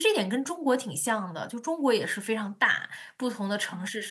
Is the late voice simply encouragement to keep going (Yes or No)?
Yes